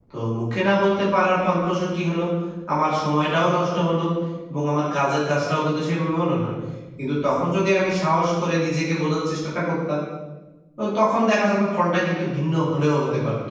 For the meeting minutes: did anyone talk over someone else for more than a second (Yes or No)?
No